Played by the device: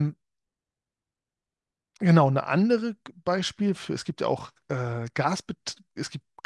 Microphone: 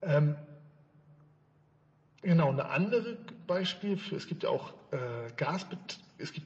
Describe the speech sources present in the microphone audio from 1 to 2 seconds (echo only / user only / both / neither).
neither